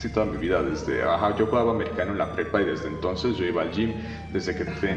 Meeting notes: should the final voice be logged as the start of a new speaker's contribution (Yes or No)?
No